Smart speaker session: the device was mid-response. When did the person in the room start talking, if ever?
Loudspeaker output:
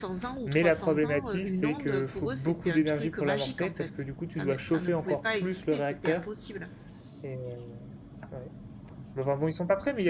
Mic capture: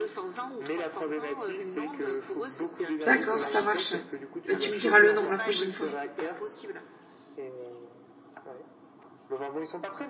3 s

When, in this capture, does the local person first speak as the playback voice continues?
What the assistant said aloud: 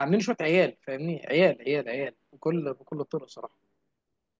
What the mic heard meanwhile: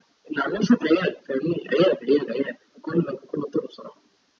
none

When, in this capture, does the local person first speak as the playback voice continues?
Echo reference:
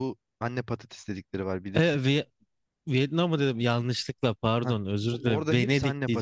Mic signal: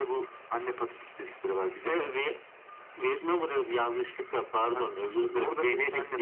none

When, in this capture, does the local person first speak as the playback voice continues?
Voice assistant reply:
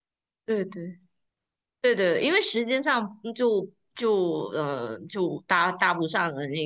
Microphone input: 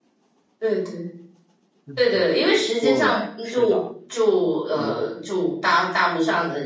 2 s

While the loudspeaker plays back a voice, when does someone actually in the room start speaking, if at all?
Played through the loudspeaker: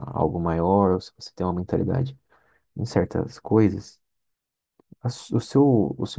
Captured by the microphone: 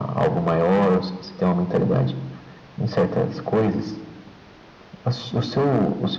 none

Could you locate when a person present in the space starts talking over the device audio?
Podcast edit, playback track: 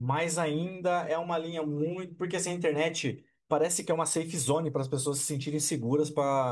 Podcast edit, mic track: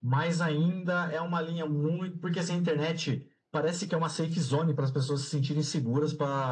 none

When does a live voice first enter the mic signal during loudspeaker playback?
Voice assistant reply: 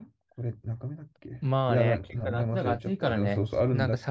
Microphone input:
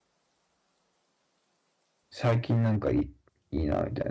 2 s

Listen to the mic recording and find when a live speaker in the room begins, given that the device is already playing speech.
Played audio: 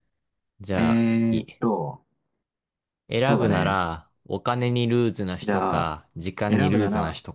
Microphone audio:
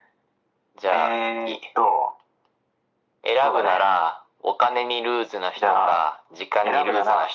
none

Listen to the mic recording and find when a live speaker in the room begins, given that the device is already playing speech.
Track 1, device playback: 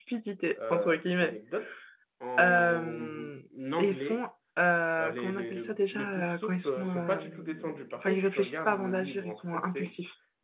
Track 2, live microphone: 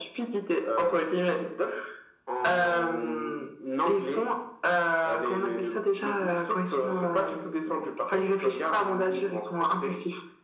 none

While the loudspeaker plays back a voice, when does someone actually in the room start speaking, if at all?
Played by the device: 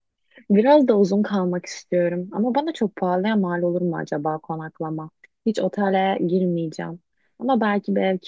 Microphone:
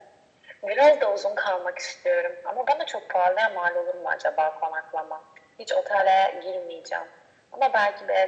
none

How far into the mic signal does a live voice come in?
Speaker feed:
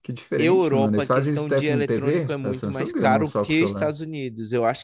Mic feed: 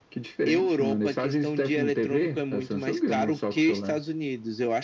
none

